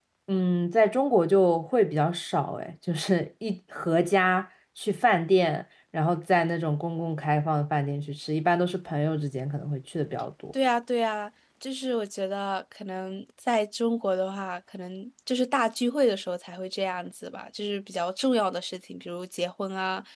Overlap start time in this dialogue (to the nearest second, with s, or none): none